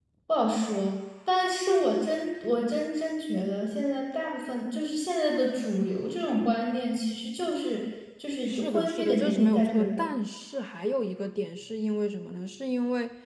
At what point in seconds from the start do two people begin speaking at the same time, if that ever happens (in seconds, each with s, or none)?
8.5 s